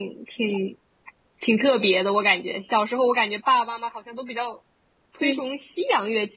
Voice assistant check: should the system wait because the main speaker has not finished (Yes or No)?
Yes